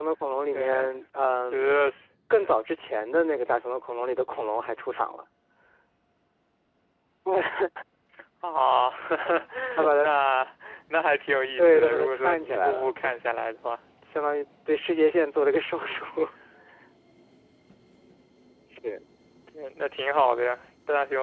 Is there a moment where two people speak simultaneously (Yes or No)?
Yes